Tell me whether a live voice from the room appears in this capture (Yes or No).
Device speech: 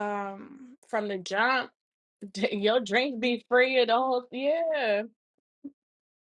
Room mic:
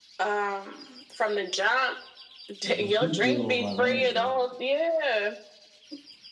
Yes